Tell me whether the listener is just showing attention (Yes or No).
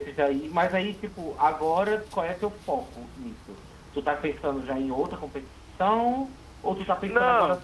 Yes